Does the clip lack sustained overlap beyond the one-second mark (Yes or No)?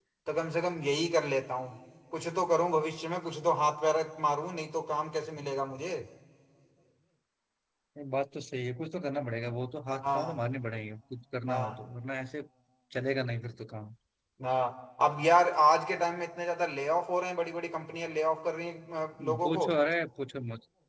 Yes